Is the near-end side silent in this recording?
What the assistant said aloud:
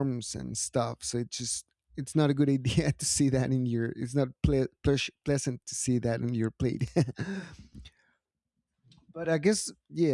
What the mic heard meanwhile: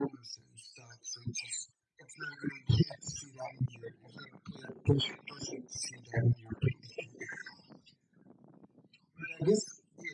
Yes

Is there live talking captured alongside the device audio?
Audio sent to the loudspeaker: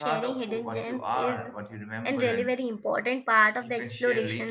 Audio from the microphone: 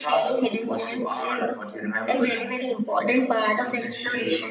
No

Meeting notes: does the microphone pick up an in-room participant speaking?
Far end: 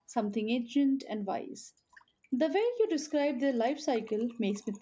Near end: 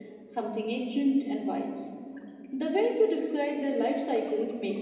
No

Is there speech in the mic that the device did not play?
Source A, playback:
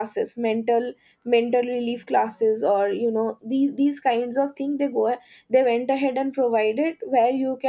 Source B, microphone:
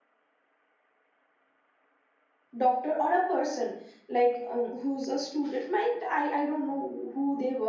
Yes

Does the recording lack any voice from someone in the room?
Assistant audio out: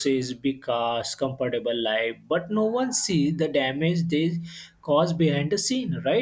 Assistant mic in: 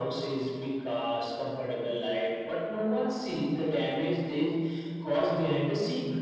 Yes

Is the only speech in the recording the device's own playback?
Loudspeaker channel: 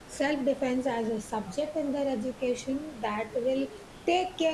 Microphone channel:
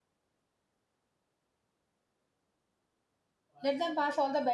No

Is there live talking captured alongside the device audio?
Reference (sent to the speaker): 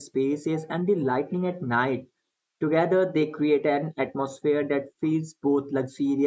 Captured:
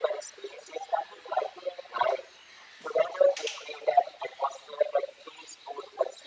No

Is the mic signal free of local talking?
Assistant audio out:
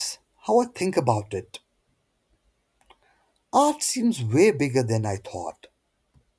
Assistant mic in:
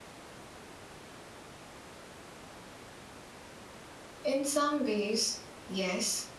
No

